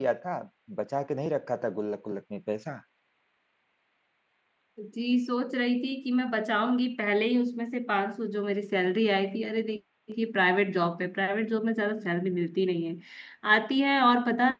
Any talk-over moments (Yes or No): No